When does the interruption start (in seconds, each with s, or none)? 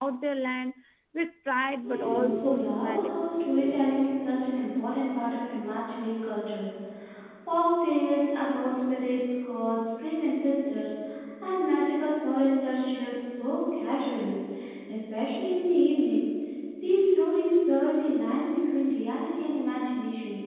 1.9 s